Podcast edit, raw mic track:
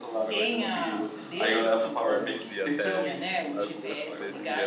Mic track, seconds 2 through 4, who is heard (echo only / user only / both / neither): both